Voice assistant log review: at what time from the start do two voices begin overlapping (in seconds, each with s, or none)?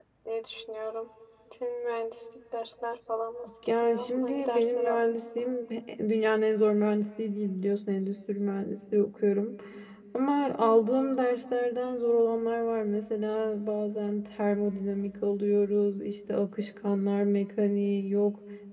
3.6 s